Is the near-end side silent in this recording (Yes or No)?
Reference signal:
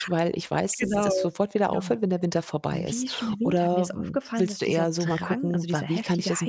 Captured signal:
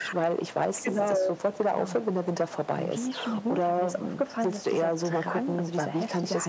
Yes